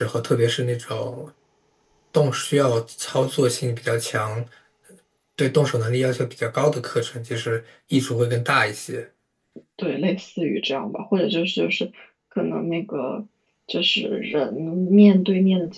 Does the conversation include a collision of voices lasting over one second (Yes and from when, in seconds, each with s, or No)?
No